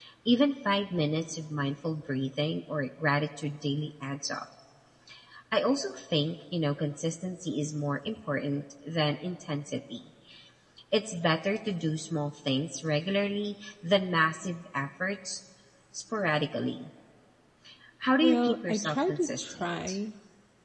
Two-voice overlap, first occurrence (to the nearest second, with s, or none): 18 s